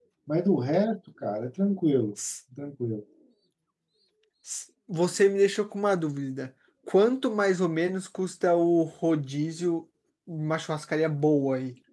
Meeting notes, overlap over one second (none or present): none